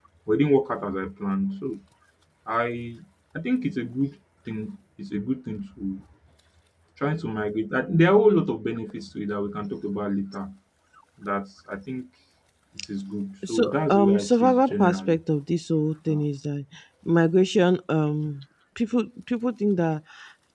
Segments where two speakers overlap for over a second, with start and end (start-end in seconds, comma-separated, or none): 13.5-15.2